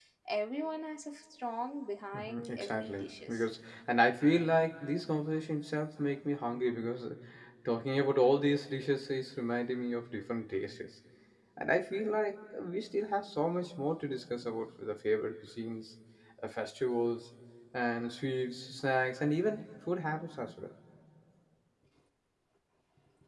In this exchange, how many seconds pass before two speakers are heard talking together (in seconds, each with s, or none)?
2.1 s